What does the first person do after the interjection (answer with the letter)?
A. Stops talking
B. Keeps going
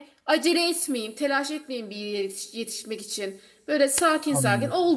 B